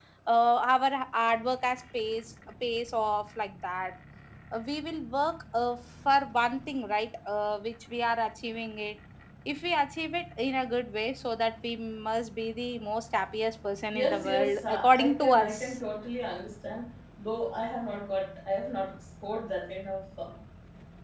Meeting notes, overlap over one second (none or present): present